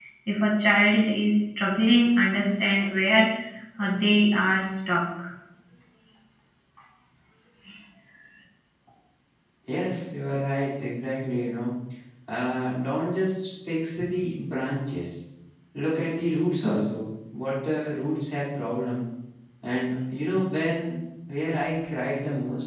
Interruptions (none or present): none